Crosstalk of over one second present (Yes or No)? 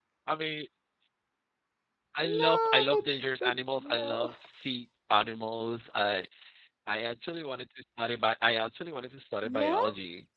Yes